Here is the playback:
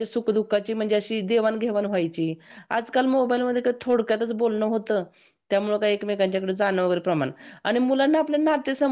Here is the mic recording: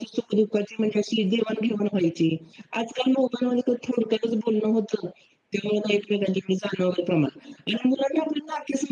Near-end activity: none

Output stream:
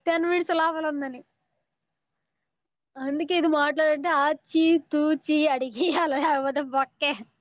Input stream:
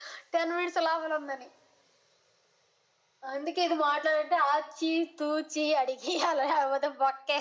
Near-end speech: none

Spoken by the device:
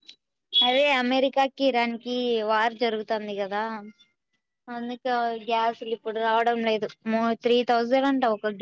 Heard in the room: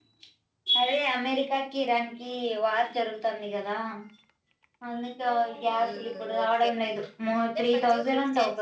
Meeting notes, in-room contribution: present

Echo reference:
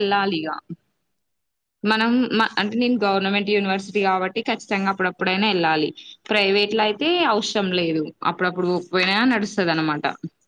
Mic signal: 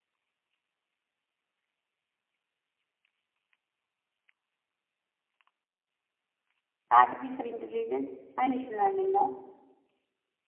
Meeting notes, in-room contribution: present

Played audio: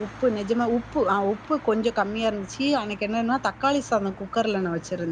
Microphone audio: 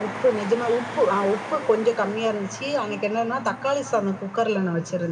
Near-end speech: none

